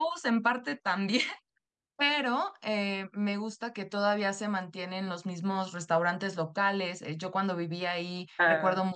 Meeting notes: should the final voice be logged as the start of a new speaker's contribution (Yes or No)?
No